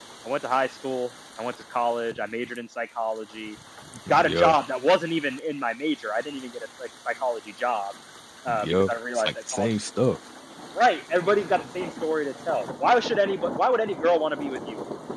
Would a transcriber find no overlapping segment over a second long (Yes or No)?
No